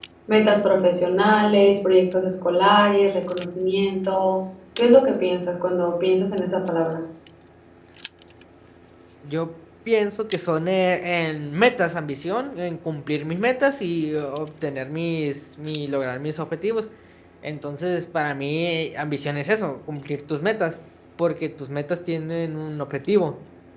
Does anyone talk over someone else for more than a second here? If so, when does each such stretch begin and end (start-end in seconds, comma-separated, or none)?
none